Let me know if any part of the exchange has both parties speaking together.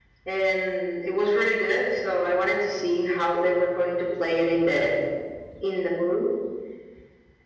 No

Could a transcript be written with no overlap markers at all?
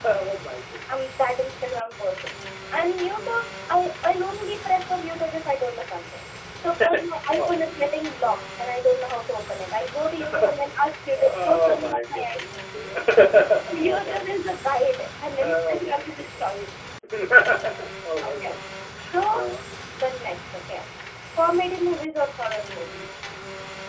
No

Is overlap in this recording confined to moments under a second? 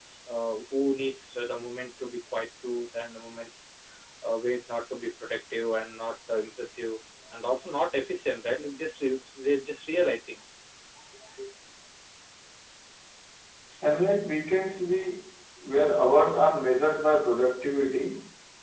Yes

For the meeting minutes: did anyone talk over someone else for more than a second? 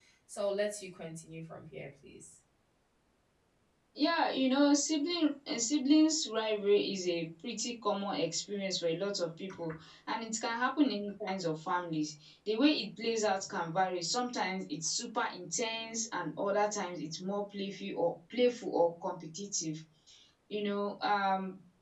No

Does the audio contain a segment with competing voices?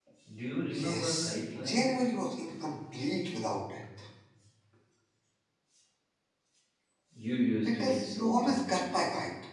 Yes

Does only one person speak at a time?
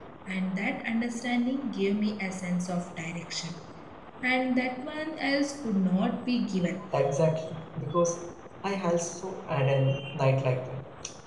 Yes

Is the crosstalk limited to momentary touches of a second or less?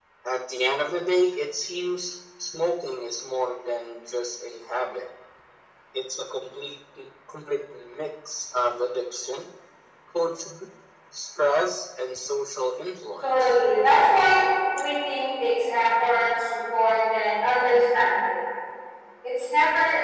Yes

